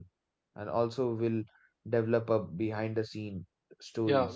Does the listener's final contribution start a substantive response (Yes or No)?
Yes